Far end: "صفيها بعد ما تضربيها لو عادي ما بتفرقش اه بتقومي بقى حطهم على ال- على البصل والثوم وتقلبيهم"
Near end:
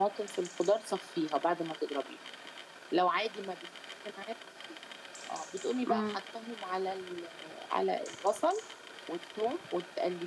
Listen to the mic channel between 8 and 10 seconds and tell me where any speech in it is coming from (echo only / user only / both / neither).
echo only